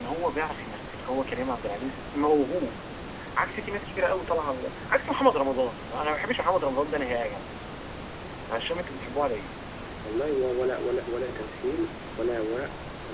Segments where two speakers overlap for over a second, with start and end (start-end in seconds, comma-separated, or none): none